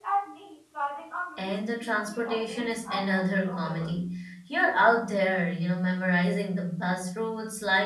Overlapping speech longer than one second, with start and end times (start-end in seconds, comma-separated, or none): 1.4-3.9